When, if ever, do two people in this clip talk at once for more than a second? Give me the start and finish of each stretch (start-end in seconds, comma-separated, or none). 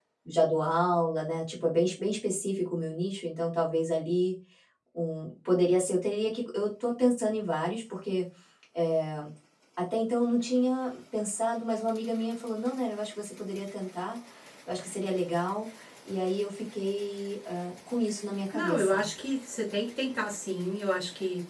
none